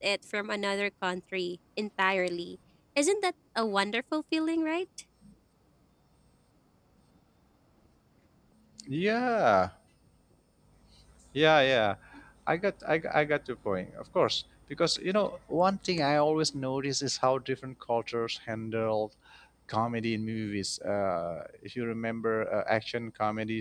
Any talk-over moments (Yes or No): No